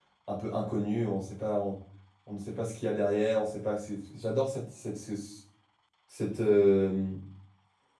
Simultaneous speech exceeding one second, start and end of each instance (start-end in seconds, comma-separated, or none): none